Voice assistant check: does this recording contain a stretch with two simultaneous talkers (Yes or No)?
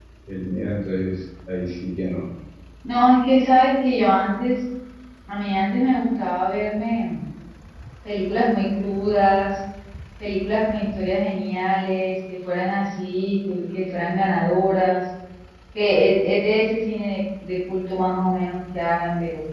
No